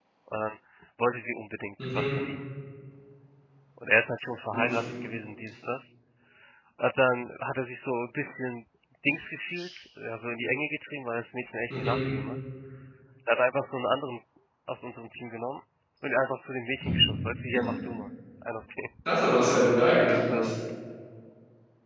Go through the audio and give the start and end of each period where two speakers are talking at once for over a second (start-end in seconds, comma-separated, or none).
none